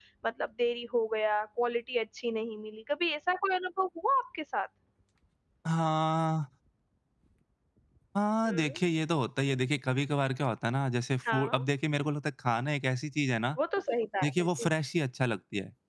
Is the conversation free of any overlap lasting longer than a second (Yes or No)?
Yes